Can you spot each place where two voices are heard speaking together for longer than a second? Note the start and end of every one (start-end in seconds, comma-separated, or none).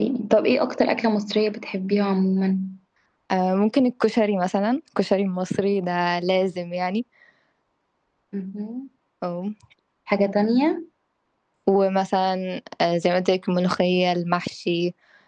none